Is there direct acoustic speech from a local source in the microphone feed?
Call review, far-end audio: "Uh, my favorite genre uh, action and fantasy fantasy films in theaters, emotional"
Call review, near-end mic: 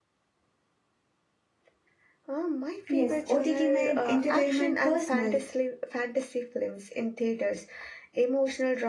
Yes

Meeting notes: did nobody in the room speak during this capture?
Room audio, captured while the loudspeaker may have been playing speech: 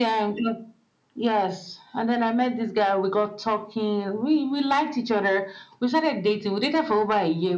Yes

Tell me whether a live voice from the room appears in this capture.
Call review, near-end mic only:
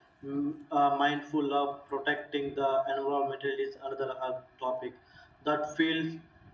No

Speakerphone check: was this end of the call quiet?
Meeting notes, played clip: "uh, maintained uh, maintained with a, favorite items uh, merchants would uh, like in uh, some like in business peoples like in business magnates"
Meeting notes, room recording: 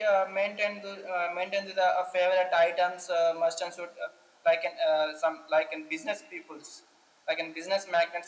Yes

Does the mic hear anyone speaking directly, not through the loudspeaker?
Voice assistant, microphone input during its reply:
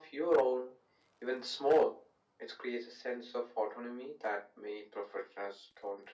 No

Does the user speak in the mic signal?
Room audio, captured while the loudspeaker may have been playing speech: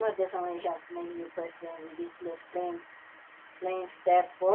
Yes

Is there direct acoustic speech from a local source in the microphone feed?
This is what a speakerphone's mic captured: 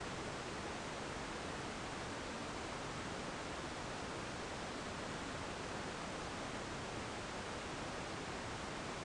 No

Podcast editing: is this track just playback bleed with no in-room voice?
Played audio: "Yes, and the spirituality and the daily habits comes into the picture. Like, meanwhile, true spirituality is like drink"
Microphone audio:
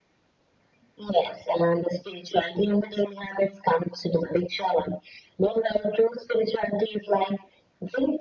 Yes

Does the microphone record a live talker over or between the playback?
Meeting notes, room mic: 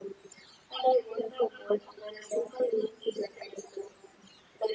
No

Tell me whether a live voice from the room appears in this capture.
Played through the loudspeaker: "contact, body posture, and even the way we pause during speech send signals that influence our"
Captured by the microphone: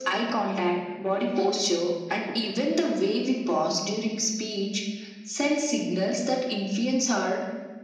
No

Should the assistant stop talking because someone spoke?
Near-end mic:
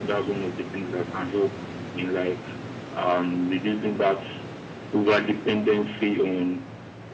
No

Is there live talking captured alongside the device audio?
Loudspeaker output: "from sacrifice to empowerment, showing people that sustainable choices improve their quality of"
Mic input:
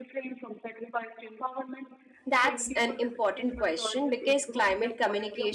Yes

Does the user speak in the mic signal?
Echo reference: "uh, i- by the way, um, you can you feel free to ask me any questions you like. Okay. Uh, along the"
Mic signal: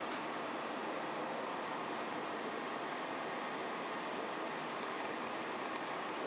No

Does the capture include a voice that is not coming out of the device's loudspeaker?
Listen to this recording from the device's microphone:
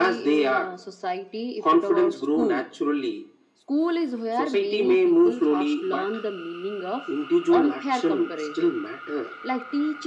No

